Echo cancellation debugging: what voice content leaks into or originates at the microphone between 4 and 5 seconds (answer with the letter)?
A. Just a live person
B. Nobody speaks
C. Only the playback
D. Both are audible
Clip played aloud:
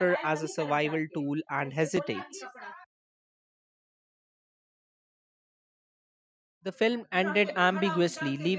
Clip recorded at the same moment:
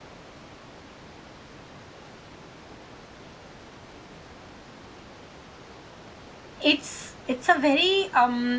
B